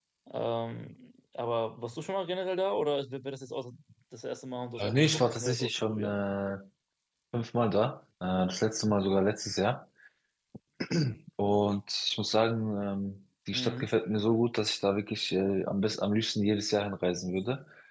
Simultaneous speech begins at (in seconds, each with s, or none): 4.8 s